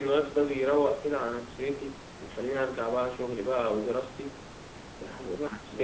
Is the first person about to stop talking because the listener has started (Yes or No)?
No